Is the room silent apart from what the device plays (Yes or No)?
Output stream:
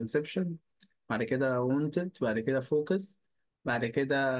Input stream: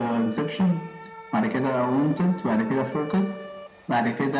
Yes